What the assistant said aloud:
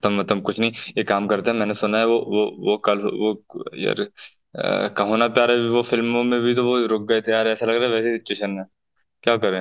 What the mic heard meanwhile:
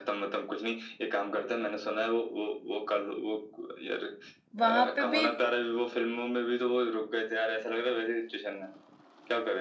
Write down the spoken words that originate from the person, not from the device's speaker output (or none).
वहां पे भी